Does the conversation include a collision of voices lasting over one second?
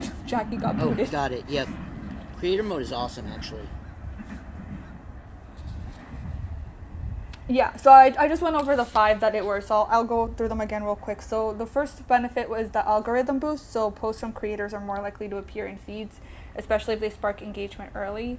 No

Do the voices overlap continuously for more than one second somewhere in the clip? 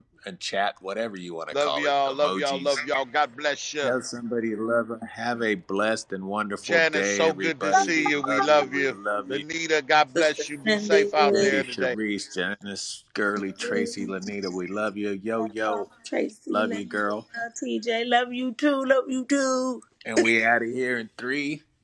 Yes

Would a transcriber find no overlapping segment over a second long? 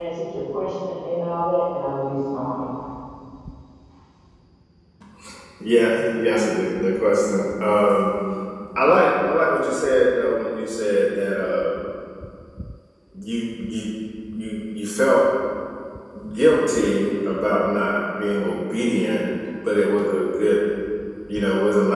Yes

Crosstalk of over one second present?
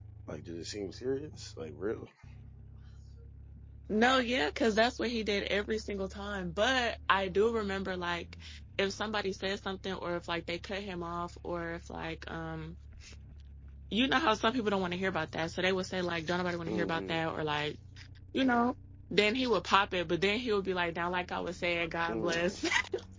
No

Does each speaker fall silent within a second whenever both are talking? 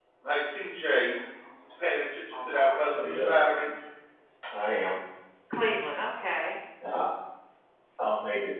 No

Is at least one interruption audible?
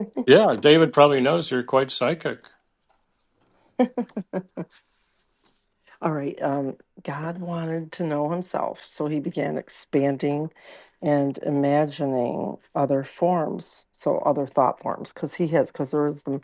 No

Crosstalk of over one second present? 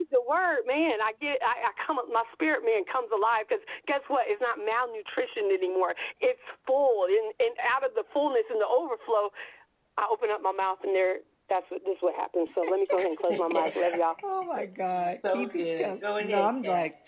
Yes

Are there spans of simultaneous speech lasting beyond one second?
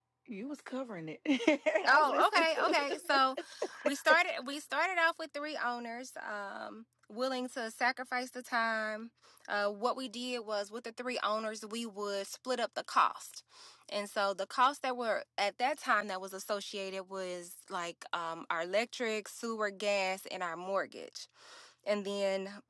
Yes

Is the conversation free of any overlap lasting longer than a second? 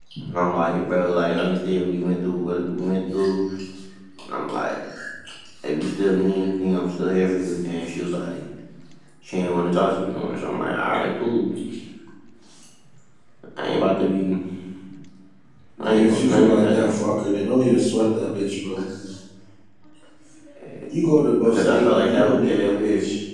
No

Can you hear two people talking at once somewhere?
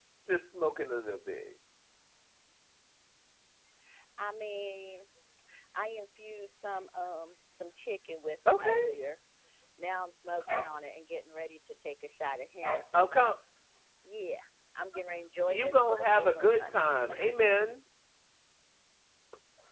Yes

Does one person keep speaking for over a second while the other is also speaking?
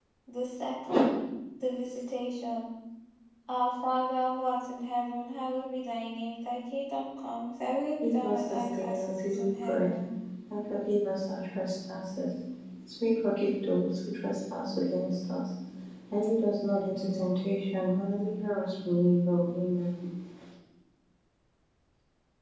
Yes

